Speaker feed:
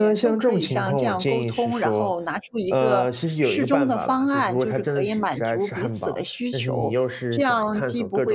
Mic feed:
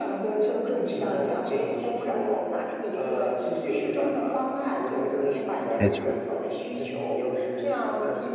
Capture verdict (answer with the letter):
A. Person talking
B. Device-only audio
A